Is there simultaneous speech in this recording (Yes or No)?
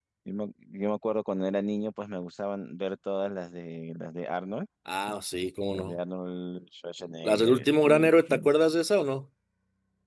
Yes